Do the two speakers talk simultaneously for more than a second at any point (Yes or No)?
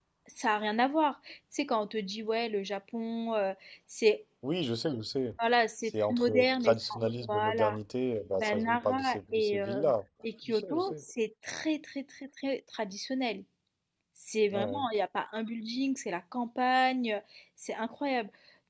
Yes